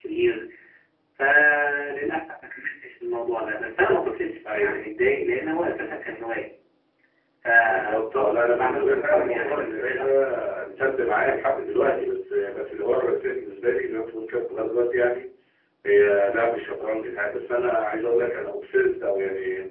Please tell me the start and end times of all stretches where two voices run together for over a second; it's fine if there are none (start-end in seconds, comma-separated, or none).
7.7-10.1